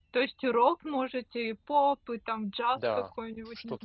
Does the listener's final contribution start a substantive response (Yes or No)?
Yes